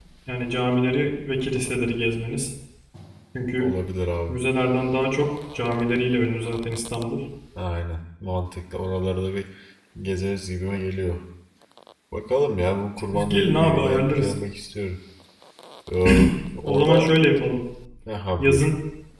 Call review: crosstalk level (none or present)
present